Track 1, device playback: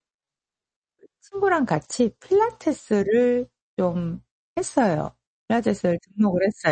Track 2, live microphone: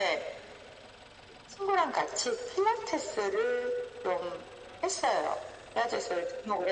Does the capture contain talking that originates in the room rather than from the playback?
No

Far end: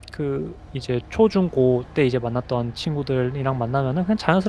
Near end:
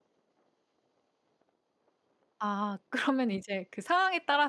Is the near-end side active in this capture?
Yes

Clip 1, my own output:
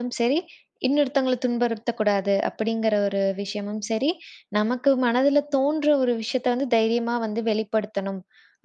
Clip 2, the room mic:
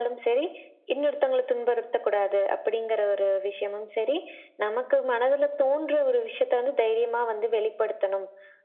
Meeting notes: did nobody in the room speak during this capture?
Yes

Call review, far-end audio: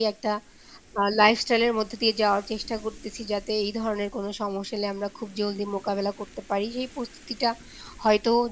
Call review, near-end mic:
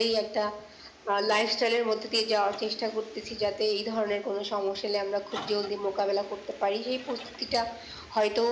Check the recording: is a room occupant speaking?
No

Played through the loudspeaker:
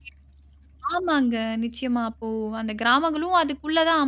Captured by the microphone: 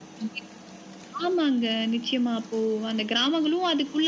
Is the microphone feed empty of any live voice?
Yes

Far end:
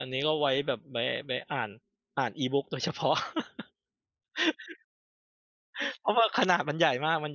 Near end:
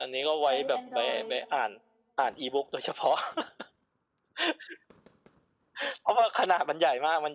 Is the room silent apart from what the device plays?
No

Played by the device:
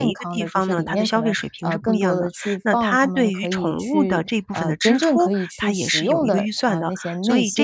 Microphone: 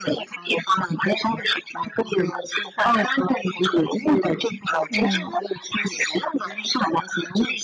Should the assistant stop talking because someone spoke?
Yes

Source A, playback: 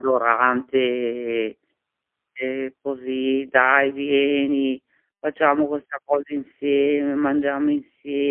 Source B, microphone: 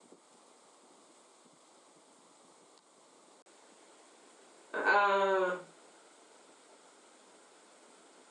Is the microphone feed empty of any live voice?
No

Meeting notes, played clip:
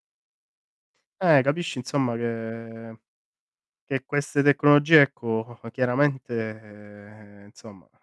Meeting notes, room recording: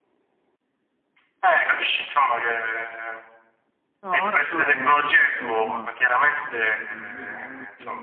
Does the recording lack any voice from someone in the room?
No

